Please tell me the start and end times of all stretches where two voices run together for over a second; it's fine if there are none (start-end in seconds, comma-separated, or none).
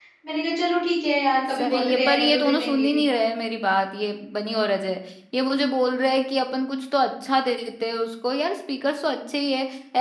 1.6-2.9